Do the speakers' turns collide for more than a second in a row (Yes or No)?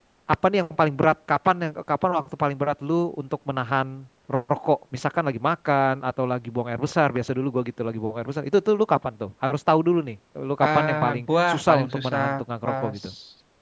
Yes